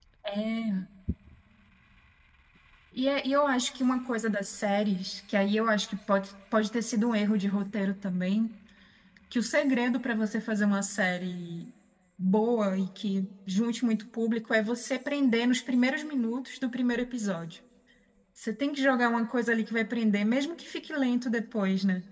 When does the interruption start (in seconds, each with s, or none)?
none